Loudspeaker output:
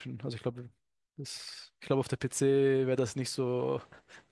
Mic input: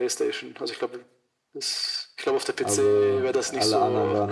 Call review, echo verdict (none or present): present